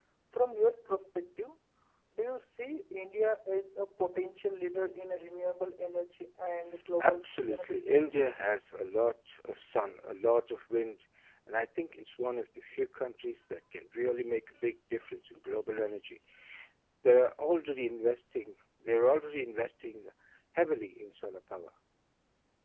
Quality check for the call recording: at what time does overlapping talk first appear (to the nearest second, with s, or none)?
7 s